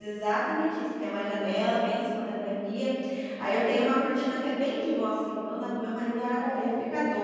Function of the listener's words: listening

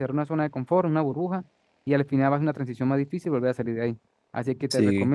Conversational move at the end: listening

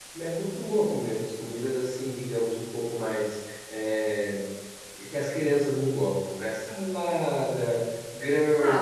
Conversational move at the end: taking over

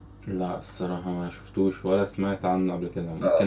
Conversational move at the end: taking over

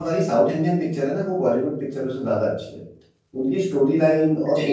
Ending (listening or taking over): listening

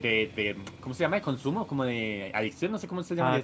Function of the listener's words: taking over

